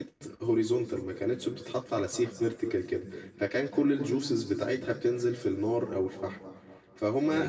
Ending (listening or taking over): taking over